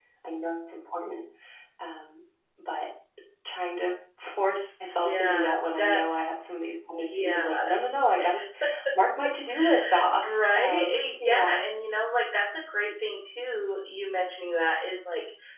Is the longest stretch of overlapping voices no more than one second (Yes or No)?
No